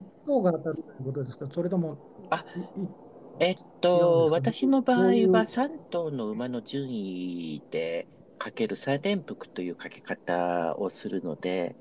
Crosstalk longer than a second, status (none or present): present